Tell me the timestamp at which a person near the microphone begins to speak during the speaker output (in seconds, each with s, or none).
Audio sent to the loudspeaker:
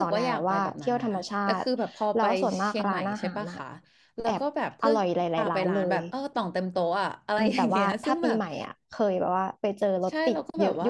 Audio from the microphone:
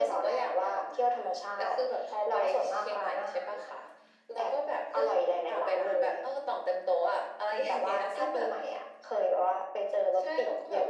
none